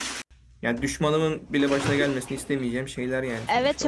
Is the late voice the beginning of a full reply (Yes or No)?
Yes